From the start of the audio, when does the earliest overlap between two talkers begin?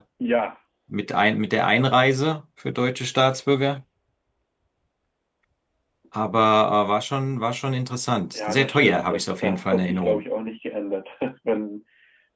8.4 s

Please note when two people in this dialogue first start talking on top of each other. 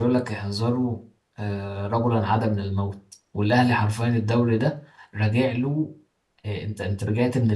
none

